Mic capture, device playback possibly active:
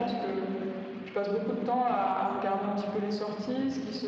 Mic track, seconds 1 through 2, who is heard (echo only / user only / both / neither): echo only